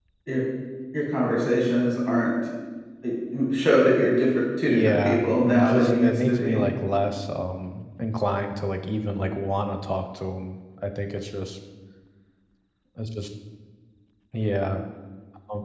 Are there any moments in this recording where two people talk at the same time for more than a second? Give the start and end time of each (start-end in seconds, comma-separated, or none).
4.7-6.6